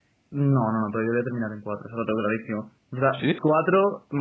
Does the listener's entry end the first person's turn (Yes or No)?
No